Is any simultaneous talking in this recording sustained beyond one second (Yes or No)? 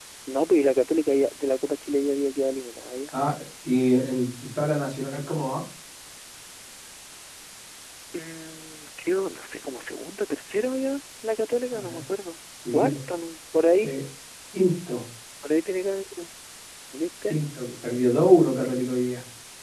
No